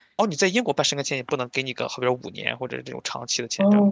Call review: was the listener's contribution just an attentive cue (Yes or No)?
No